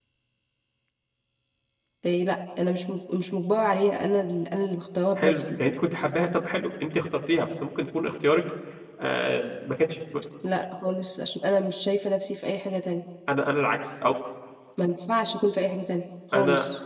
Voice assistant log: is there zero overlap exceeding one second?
Yes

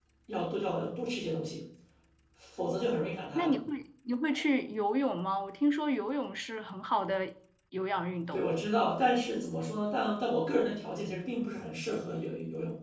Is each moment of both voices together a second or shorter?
Yes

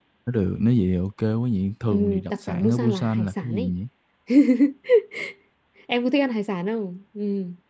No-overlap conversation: No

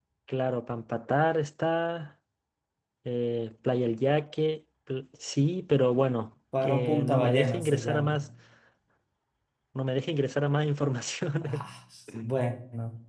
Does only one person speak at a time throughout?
No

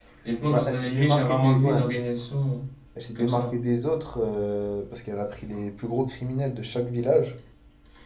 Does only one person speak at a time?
No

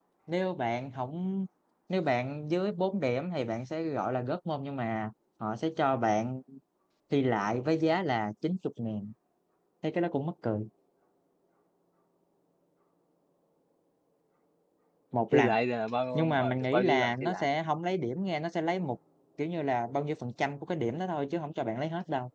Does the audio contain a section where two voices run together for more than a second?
Yes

